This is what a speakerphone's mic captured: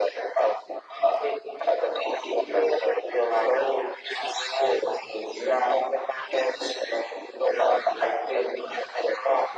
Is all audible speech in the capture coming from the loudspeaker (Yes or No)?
Yes